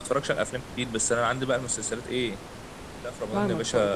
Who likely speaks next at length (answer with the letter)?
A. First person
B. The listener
B